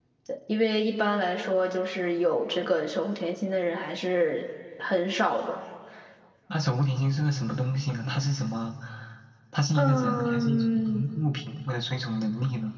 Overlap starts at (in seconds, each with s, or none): 9.8 s